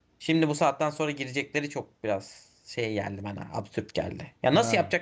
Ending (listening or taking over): listening